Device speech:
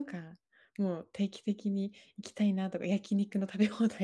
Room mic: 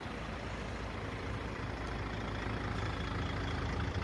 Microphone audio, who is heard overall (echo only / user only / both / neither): neither